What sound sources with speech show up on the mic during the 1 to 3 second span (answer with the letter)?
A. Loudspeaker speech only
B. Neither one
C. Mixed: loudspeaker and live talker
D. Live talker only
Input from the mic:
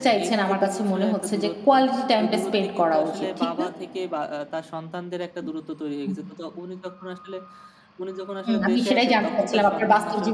C